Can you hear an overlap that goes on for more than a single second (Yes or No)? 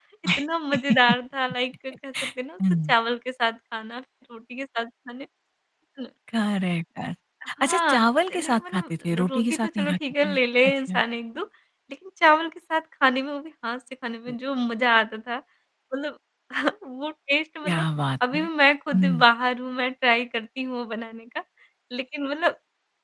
Yes